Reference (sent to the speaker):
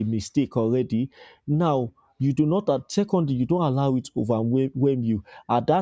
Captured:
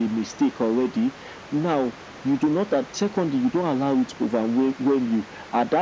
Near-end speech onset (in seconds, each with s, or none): none